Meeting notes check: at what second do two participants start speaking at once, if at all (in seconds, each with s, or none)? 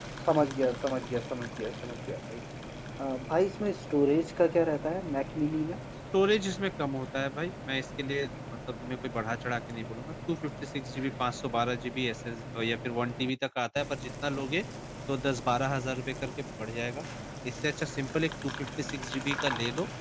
none